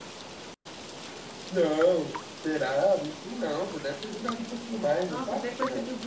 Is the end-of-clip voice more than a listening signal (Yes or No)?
Yes